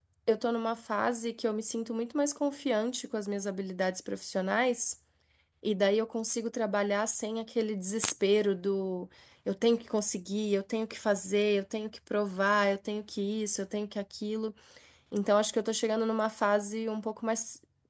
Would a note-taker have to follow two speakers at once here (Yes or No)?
No